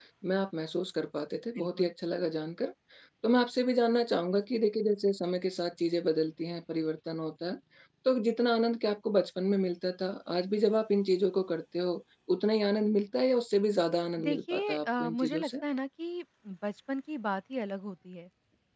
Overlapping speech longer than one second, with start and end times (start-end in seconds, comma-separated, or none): 14.2-15.5